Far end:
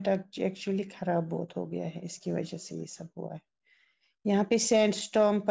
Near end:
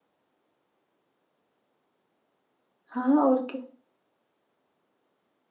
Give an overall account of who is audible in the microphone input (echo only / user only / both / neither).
user only